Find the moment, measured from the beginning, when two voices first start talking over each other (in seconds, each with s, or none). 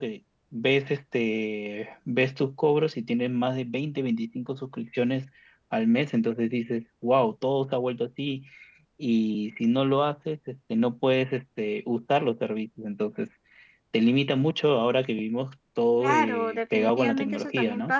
16.0 s